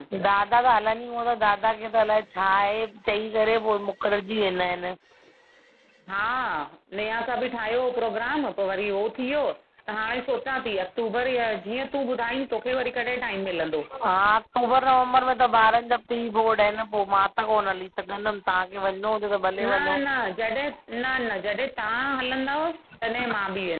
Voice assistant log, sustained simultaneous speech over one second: none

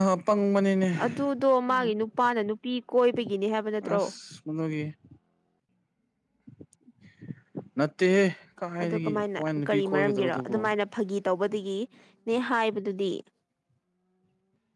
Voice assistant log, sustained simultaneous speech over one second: present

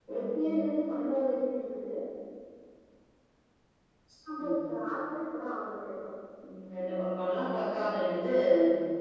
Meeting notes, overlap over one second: none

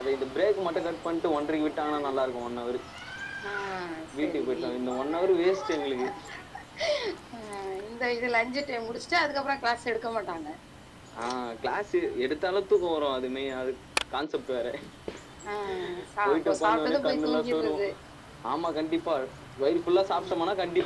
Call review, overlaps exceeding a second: present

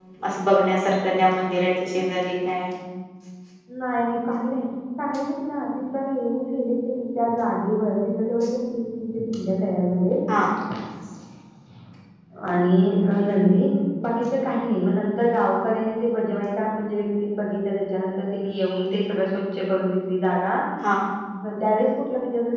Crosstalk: none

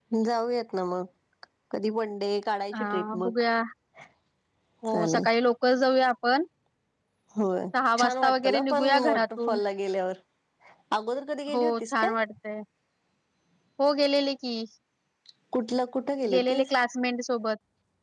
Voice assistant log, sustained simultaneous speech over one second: present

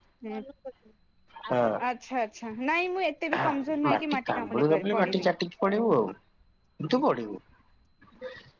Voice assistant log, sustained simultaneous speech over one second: present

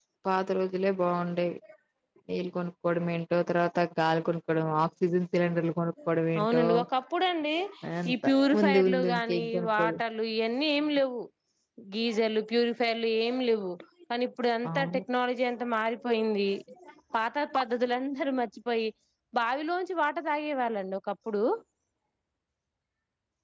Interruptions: present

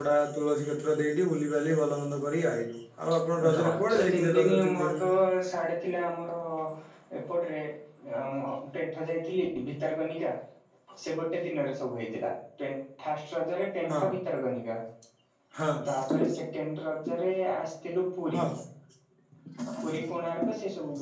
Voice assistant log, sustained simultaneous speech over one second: present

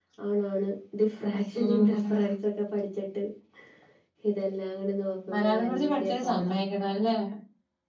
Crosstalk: present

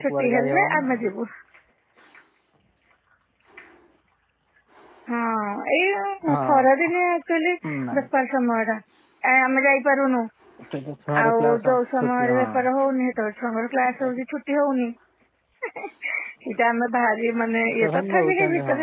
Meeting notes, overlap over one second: present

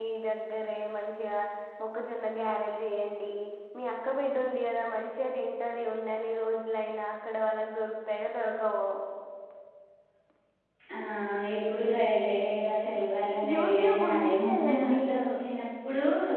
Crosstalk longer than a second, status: present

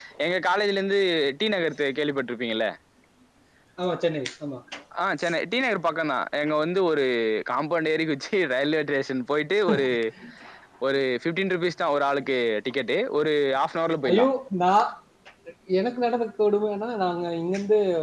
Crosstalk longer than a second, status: none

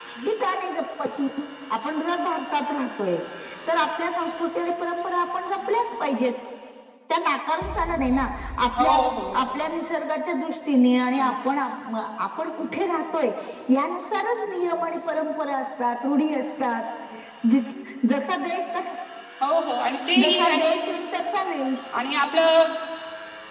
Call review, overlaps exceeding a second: none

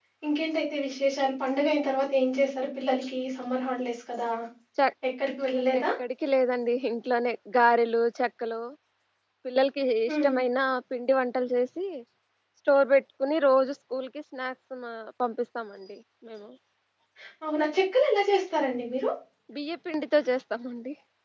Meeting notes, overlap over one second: none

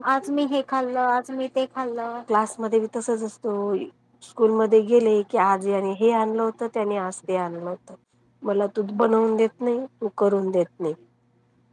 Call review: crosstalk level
none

